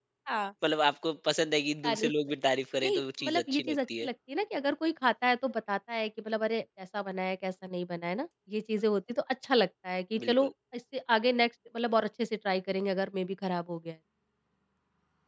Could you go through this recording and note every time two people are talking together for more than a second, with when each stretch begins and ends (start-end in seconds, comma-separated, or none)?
2.8-4.1